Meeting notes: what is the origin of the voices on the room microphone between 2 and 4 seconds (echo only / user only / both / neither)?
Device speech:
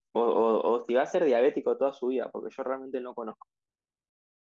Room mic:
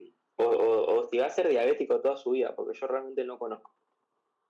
echo only